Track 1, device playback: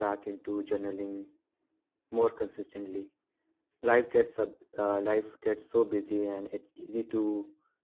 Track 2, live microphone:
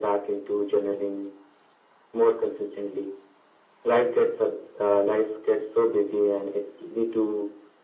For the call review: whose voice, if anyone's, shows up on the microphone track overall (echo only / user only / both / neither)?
echo only